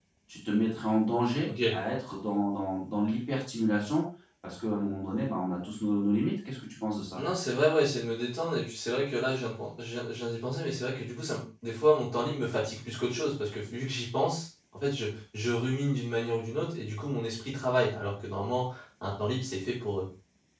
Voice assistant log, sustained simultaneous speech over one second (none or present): none